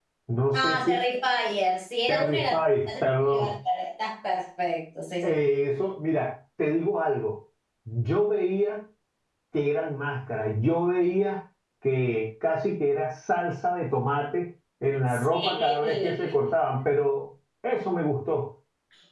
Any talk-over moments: Yes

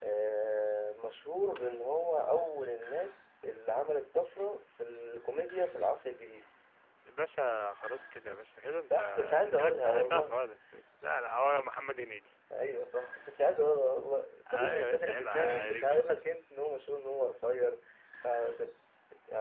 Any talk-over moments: Yes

